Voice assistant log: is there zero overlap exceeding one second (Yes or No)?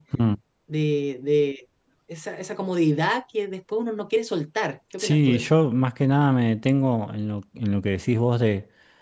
Yes